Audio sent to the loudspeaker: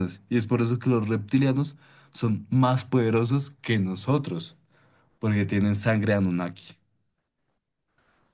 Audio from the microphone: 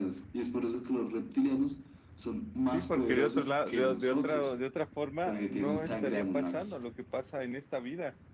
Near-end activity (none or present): present